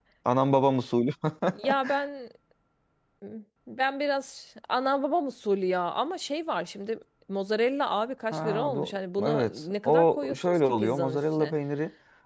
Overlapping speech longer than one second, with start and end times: 8.3-11.5

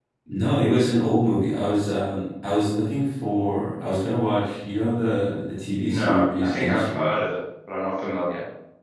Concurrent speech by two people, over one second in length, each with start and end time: 5.8-7.0

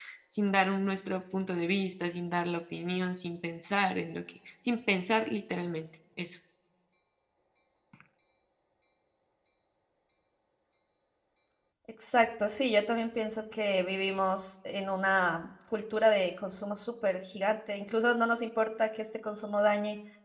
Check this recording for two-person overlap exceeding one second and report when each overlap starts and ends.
none

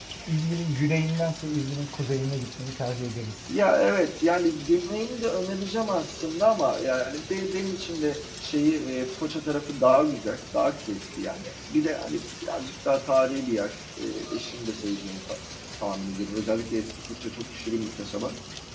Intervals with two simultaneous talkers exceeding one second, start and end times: none

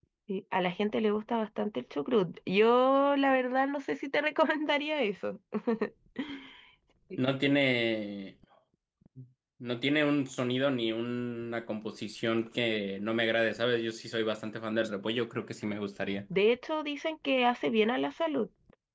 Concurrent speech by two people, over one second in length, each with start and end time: none

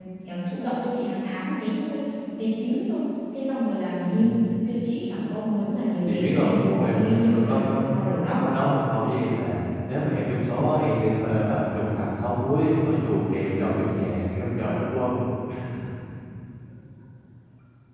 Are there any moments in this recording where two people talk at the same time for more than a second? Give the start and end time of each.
6.0-7.6

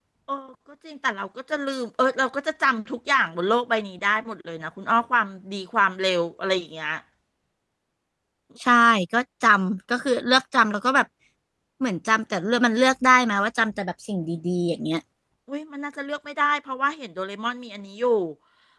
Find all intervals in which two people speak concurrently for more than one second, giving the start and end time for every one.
none

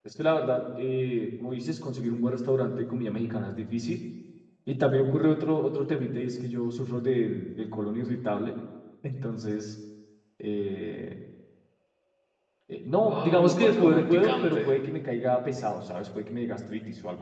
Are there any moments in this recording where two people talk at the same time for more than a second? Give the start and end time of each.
13.1-14.7

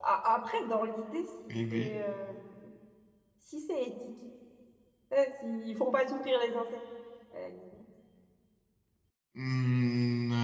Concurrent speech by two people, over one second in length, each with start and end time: none

